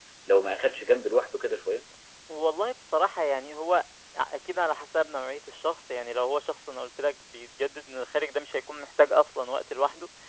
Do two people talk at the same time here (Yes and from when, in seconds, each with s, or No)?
No